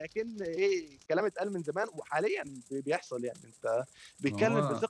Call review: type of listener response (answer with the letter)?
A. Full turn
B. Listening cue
B